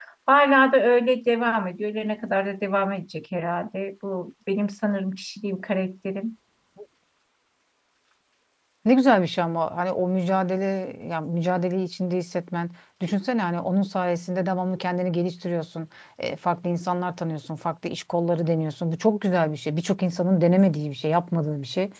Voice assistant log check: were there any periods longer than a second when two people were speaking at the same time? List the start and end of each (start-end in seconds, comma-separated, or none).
none